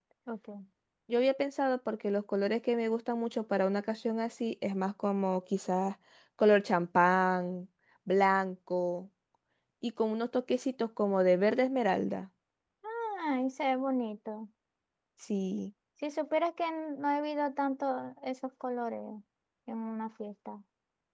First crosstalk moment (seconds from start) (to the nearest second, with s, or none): none